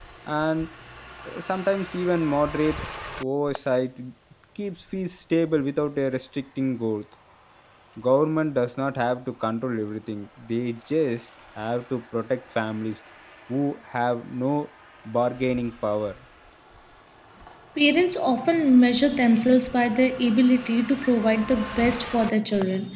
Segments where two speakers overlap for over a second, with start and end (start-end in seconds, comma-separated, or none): none